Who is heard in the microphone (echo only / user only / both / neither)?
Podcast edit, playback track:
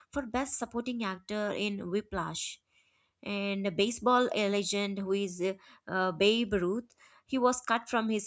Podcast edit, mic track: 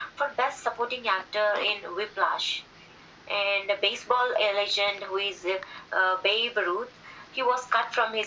echo only